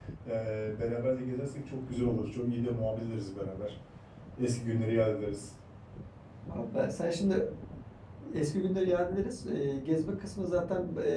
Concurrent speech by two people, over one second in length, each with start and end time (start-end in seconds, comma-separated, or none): none